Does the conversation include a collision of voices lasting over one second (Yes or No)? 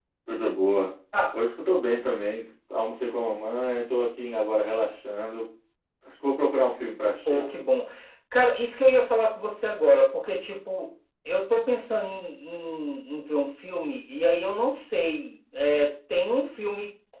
No